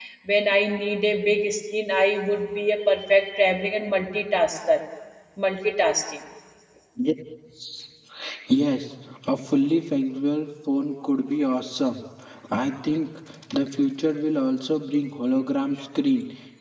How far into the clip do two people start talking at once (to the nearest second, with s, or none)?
none